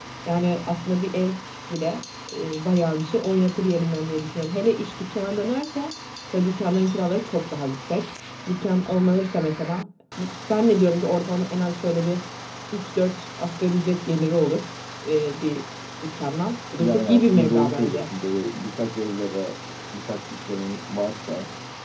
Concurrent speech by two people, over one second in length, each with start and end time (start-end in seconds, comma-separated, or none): 16.8-18.1